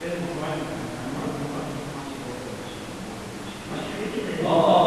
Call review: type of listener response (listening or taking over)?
taking over